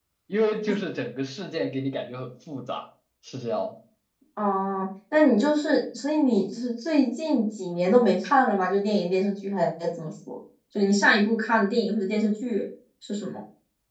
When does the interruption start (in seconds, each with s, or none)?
none